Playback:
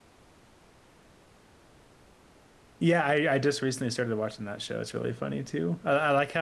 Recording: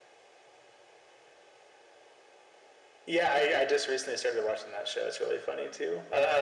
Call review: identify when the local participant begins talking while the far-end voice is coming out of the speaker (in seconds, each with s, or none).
none